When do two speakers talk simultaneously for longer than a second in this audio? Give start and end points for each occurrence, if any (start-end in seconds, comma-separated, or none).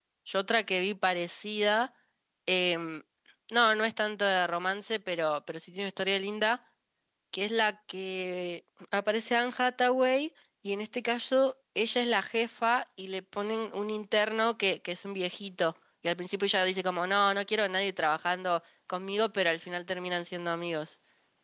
none